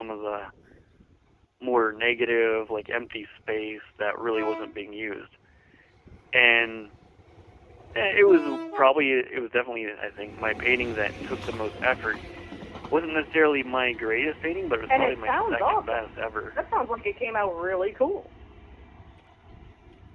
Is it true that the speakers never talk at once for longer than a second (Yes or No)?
No